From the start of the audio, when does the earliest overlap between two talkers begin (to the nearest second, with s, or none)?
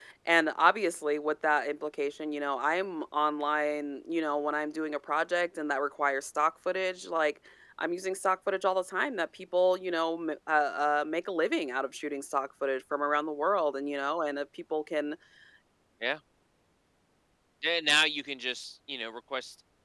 none